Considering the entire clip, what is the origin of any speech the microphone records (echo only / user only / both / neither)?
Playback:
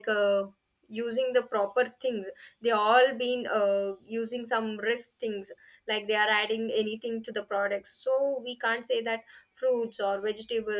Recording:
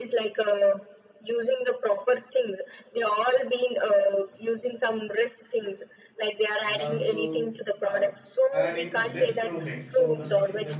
both